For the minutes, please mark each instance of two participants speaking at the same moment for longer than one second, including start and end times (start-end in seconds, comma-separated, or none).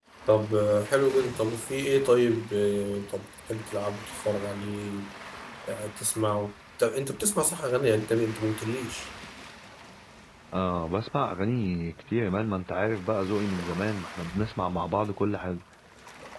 none